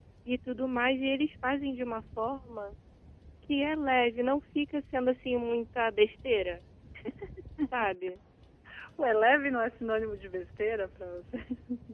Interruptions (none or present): none